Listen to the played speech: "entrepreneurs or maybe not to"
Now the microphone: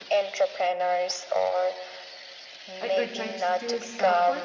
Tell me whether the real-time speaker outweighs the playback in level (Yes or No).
No